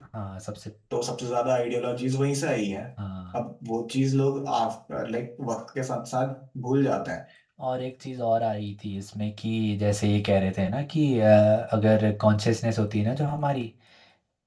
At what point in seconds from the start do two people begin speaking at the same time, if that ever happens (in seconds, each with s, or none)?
none